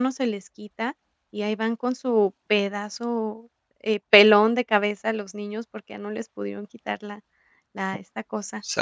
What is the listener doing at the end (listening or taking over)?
taking over